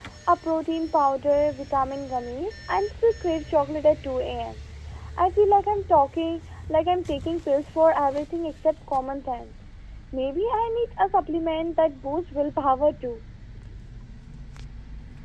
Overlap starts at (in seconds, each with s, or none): none